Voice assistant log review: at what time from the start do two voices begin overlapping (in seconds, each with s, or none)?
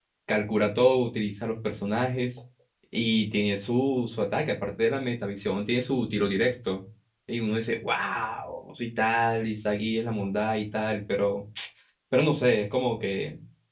none